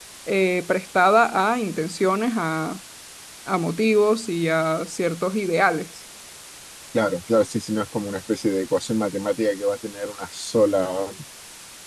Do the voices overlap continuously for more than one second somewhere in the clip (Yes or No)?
No